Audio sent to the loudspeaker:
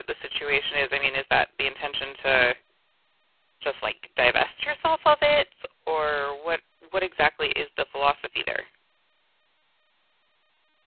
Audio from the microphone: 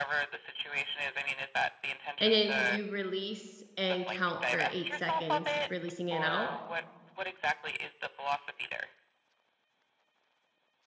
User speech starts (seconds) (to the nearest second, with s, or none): 2 s